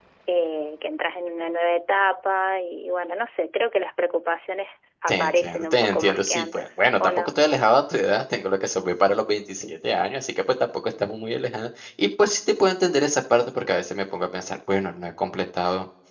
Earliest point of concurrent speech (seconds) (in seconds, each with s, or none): 5.1 s